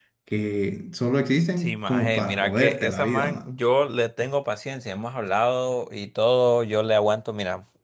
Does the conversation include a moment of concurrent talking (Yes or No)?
Yes